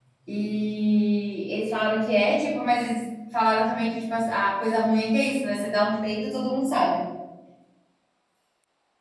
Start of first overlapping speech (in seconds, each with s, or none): none